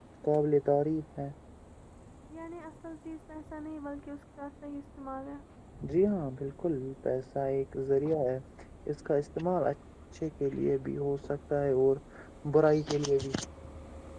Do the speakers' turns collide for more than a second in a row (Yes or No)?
No